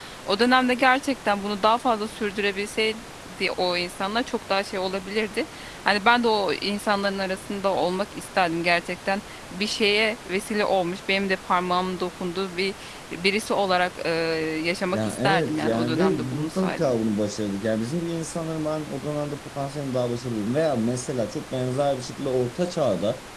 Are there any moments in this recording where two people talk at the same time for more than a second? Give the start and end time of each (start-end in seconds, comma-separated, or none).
14.9-16.9